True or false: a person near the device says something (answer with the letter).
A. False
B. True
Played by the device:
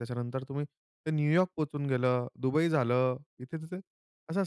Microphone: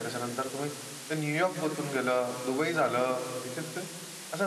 A